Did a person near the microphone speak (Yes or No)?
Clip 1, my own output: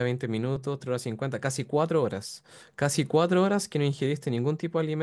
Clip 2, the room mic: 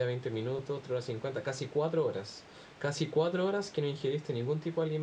No